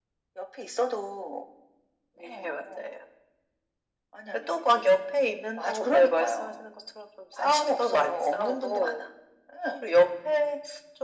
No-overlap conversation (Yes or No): No